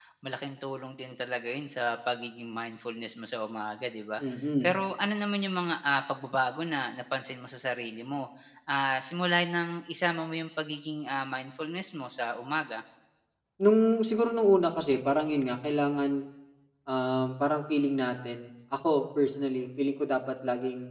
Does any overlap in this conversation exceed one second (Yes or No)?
No